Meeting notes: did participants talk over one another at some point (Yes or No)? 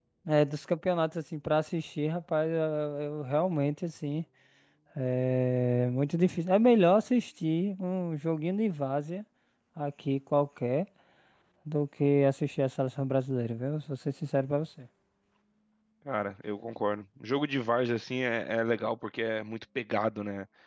No